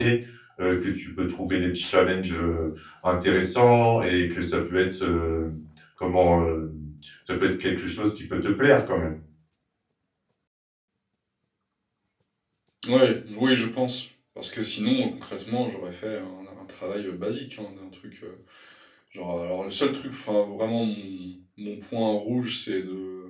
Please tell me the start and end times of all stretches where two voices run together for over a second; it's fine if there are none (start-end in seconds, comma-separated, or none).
none